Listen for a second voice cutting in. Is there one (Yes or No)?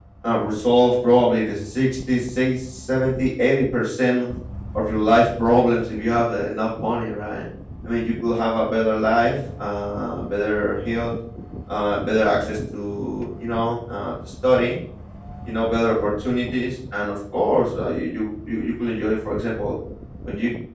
No